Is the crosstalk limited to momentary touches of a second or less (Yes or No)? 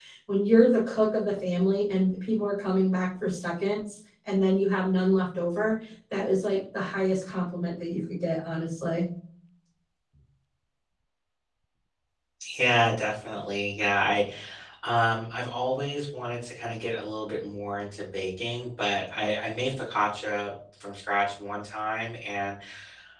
Yes